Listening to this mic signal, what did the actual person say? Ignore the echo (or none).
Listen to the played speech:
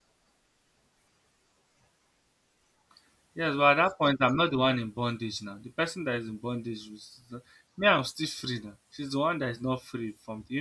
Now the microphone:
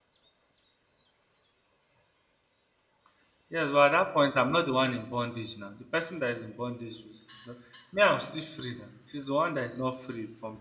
none